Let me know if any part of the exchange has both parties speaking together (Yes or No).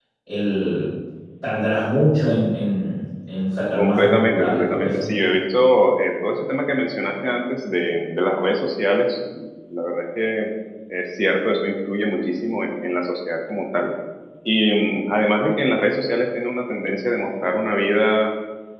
Yes